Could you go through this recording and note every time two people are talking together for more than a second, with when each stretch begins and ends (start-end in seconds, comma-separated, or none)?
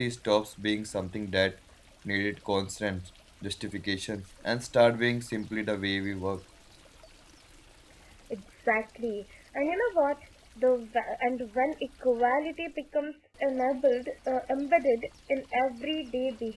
none